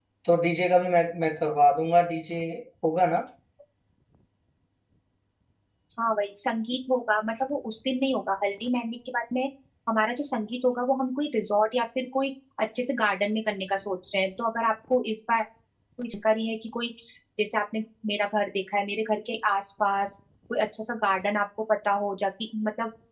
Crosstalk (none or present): none